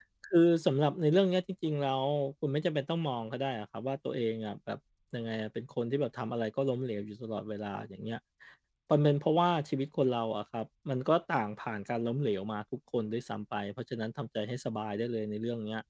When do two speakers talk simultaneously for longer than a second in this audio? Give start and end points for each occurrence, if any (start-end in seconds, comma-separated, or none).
none